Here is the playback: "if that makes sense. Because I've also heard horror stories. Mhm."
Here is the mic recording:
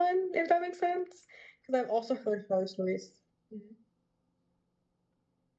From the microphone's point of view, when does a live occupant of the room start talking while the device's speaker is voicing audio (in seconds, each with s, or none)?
none